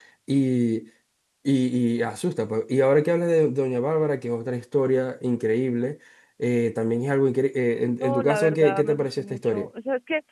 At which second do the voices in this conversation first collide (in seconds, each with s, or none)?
8.0 s